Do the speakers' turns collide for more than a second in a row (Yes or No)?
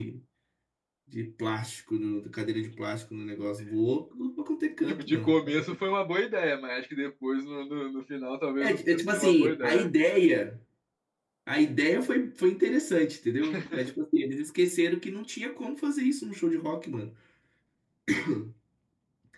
Yes